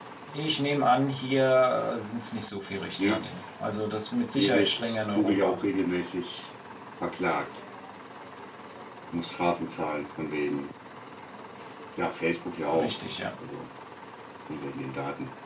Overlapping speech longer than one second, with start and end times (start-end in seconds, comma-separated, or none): 4.4-5.6